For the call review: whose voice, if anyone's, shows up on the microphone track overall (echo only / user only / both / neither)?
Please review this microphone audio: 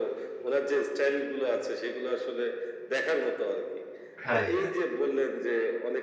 both